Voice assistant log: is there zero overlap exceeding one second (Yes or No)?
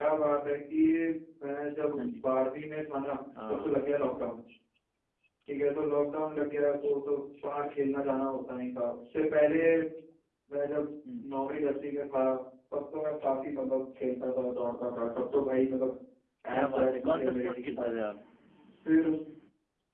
No